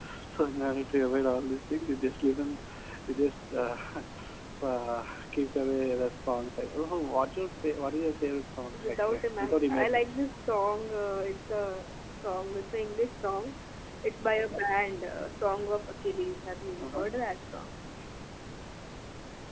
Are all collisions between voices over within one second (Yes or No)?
No